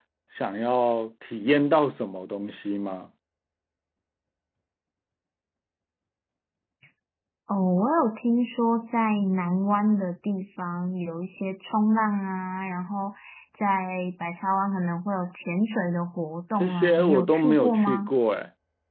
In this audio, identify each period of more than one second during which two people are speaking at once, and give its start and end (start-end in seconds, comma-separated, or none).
16.6-18.1